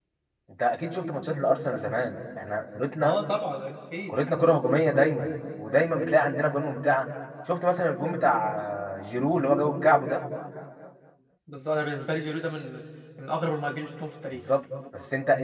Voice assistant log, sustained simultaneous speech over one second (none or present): none